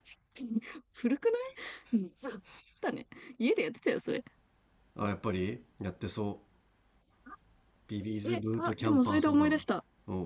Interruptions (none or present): present